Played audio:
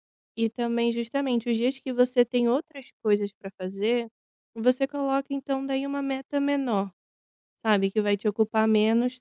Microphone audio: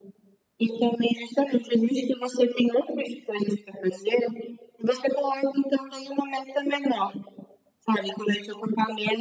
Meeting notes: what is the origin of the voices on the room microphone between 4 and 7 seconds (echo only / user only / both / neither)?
echo only